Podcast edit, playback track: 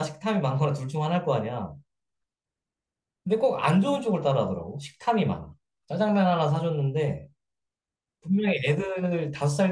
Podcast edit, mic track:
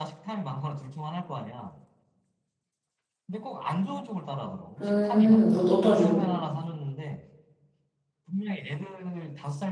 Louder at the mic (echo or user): user